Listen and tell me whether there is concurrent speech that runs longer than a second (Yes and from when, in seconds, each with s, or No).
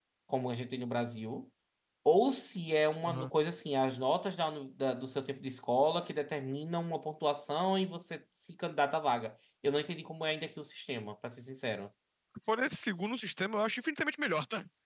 No